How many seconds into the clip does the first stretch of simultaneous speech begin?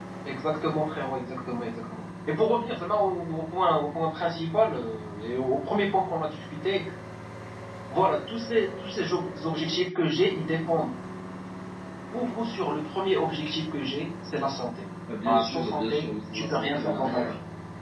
15.1 s

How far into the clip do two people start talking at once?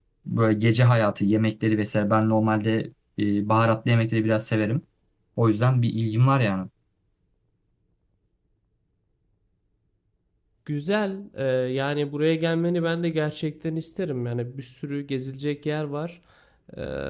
none

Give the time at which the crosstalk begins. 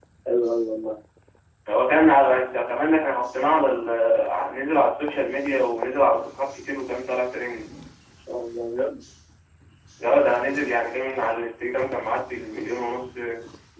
none

